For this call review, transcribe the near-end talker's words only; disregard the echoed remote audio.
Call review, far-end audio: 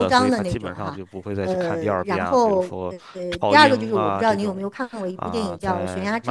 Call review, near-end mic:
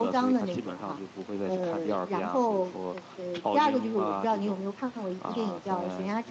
none

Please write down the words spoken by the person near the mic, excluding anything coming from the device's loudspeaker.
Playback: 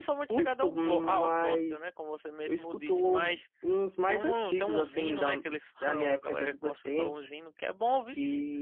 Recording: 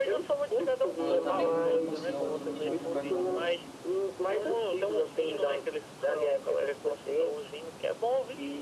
Pô, eu também curto muito Alcione e Jorge Aragão.

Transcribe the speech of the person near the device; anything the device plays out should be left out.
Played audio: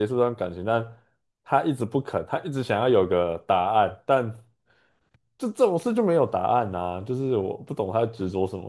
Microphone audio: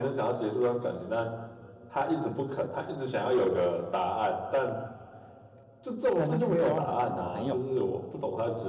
在那边交了很多男朋友，

